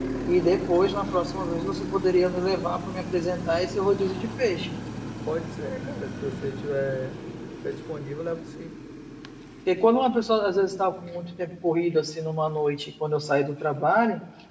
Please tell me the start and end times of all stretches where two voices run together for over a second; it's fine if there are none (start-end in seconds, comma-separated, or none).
none